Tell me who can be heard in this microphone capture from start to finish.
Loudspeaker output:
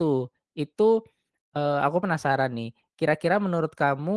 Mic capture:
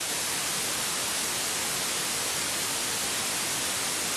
neither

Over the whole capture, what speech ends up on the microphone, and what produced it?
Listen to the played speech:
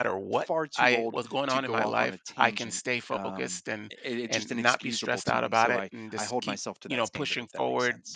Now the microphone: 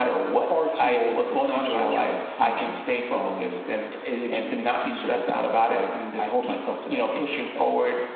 echo only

